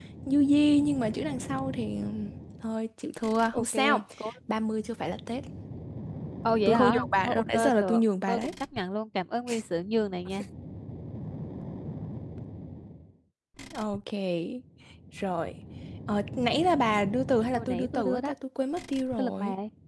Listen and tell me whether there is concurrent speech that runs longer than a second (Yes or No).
Yes